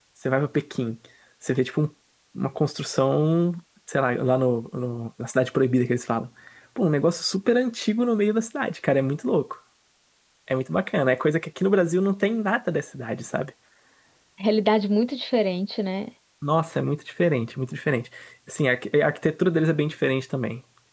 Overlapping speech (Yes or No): No